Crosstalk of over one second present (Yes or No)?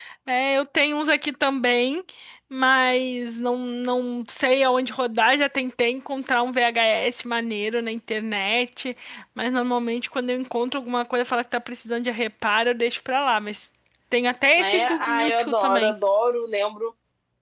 Yes